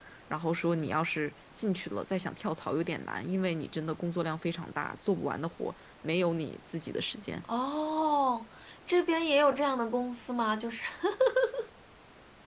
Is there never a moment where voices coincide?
Yes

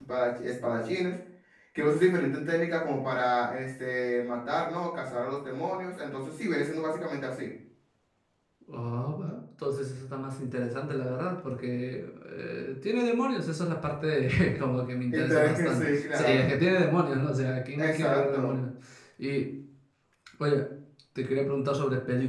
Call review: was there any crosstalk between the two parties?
Yes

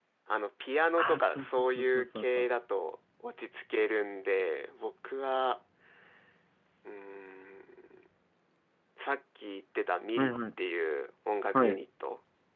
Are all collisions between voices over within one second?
No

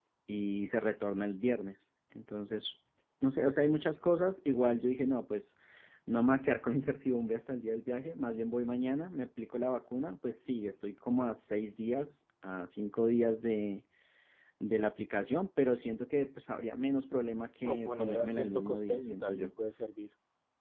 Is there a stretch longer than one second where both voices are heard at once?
Yes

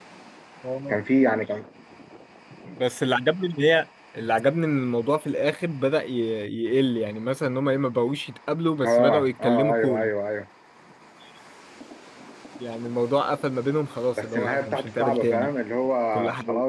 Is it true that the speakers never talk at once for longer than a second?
No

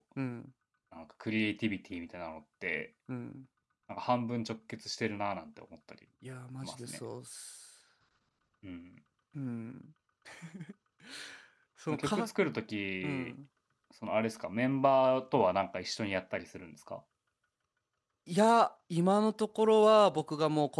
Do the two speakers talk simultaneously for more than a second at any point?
No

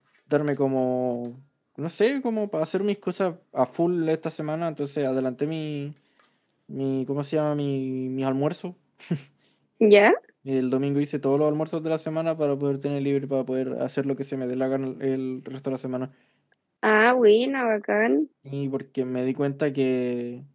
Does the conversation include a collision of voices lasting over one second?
No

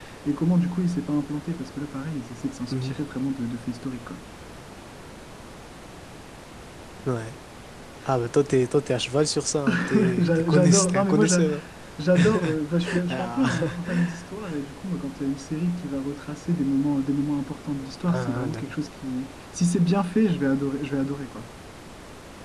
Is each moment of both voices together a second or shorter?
No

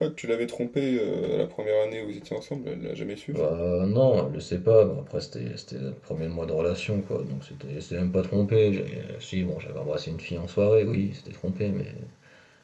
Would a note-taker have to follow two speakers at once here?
No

